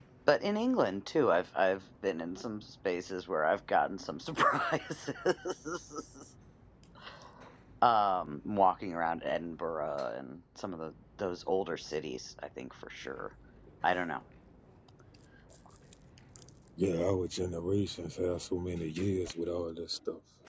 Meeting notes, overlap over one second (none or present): none